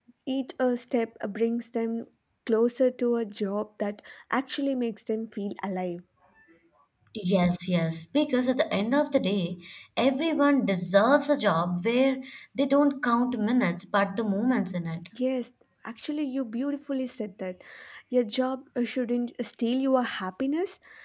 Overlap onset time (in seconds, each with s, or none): none